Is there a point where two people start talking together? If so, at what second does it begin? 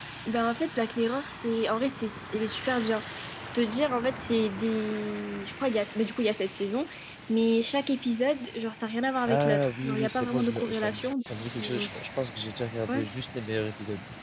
9.3 s

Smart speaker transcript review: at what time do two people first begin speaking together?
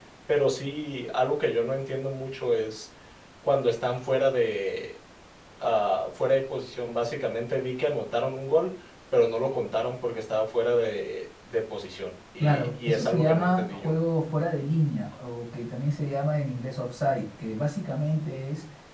12.4 s

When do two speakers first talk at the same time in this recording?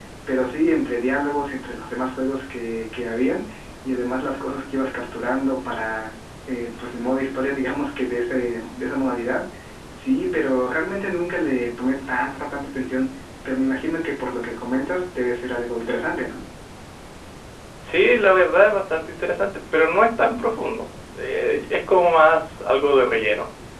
none

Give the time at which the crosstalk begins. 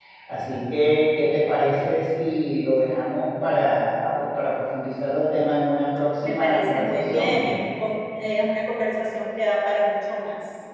6.2 s

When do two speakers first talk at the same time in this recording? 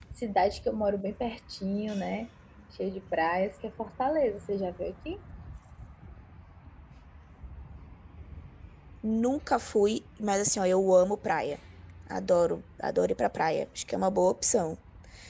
none

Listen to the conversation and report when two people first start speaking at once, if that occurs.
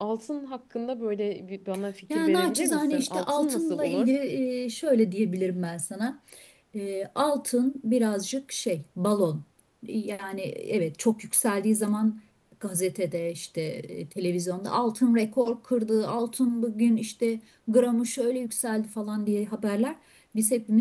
2.1 s

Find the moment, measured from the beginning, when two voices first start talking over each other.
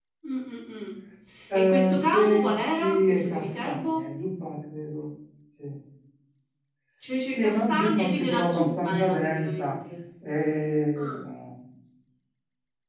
1.5 s

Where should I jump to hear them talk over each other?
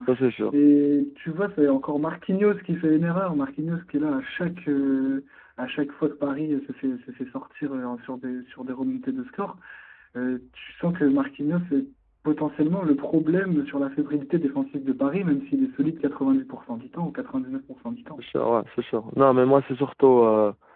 none

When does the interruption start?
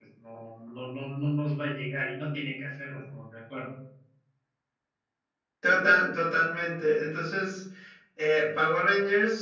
none

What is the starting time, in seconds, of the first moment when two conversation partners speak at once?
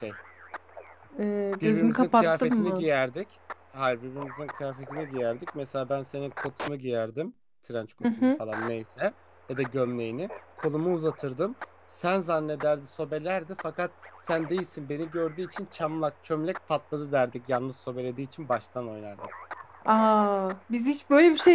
1.6 s

